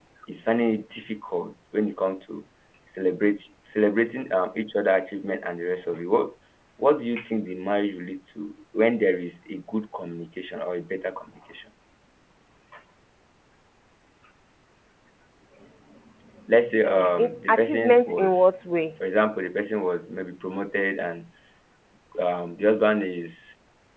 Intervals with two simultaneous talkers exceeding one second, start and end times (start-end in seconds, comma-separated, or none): 16.8-18.4